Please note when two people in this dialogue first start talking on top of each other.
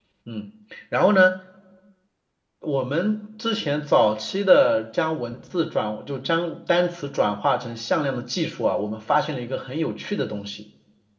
none

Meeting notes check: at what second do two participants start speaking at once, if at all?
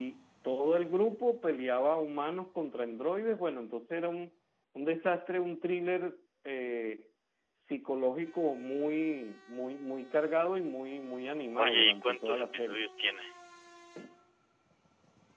12 s

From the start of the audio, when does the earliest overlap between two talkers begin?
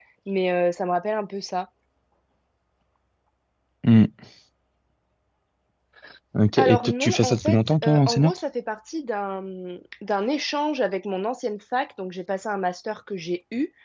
7 s

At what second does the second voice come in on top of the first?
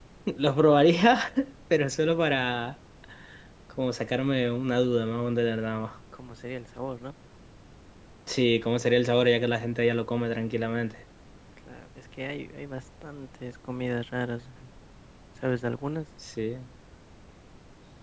none

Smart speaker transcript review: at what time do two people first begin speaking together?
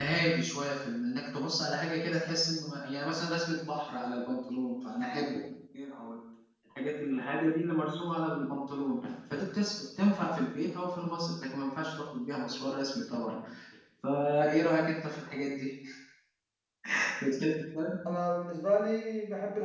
none

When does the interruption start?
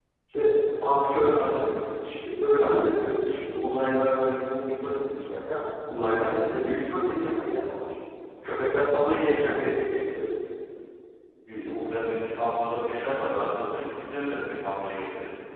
none

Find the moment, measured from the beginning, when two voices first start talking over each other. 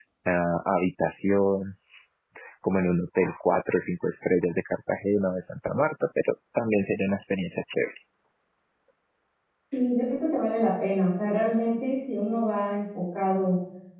none

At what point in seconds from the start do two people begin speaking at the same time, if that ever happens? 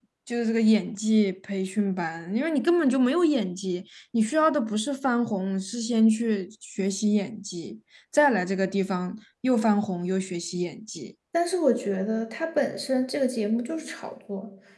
none

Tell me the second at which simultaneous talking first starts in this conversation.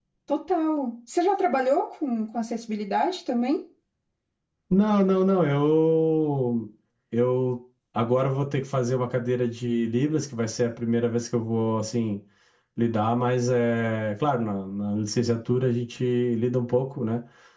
none

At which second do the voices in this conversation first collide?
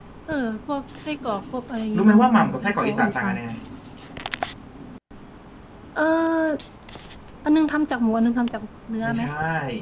2 s

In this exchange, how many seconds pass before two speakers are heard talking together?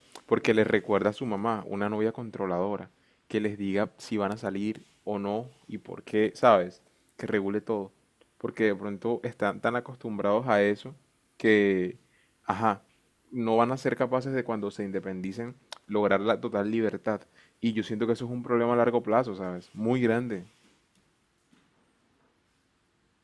none

